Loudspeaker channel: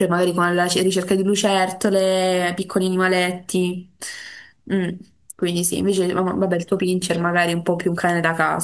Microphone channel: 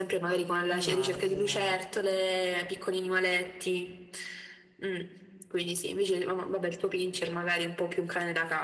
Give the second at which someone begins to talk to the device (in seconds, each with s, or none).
0.7 s